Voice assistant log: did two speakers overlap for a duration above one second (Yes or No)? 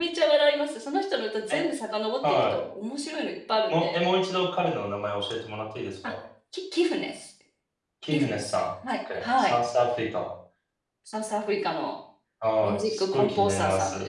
Yes